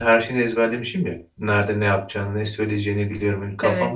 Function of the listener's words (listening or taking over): listening